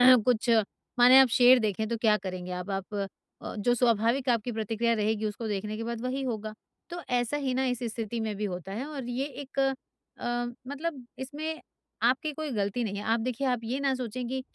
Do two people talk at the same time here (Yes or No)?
No